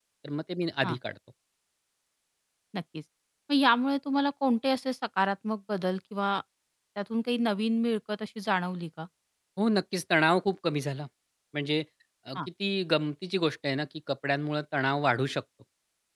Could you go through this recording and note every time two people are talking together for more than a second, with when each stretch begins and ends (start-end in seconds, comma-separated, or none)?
none